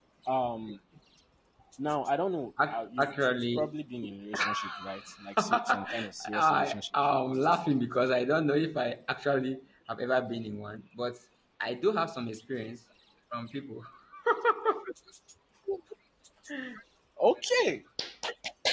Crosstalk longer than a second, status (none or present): present